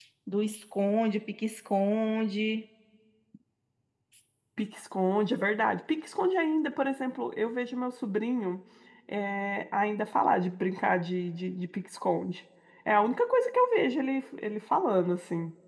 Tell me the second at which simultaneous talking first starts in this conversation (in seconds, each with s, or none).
none